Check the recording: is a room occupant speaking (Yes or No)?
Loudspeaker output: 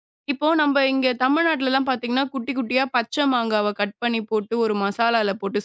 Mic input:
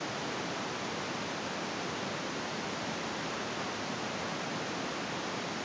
No